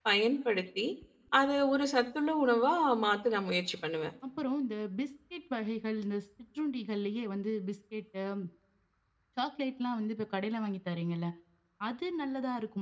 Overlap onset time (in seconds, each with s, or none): none